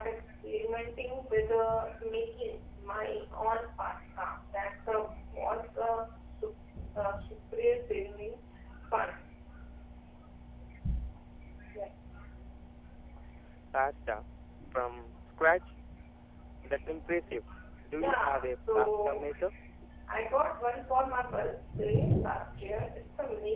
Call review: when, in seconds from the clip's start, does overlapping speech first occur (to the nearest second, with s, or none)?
18 s